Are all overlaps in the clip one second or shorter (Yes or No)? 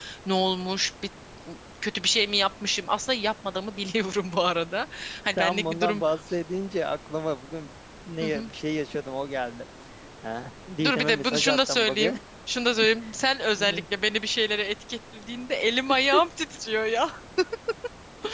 No